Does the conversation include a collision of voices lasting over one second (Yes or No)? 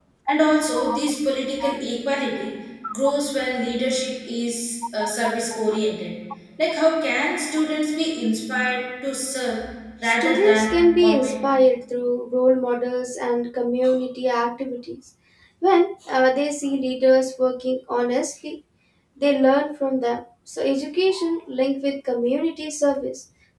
Yes